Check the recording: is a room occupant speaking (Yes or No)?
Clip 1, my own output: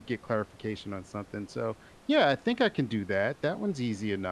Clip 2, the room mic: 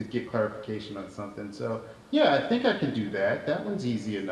No